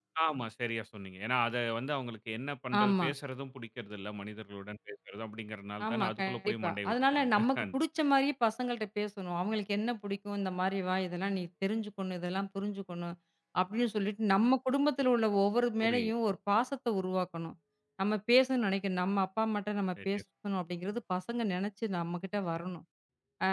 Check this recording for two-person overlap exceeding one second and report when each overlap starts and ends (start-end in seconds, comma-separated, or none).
5.9-7.8